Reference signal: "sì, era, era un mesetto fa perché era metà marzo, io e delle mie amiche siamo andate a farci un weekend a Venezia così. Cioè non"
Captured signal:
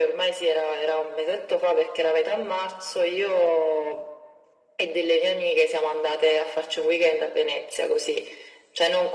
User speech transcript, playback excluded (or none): none